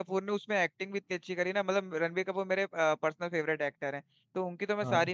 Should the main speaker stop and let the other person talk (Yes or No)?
No